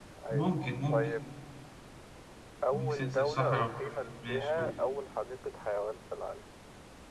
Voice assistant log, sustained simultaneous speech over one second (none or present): present